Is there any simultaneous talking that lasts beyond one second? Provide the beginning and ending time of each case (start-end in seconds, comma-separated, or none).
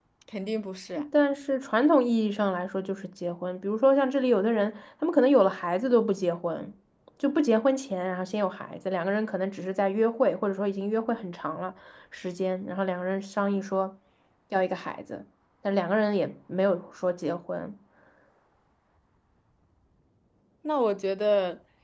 none